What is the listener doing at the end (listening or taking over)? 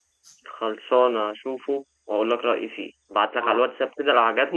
listening